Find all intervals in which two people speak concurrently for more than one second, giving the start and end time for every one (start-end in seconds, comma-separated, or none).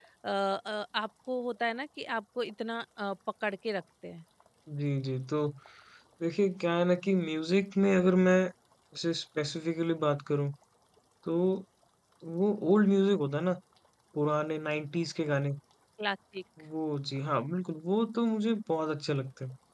none